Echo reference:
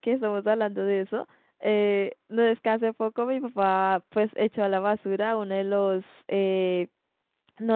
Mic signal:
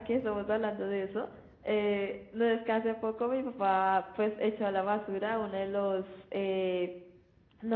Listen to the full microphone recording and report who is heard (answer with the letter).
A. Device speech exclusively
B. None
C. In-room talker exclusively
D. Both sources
A